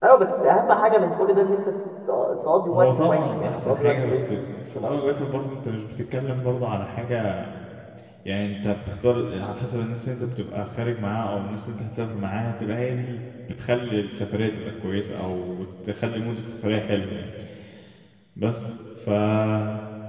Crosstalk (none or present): present